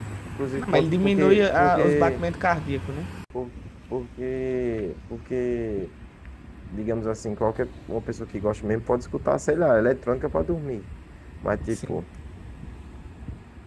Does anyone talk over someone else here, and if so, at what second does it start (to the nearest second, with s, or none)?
1 s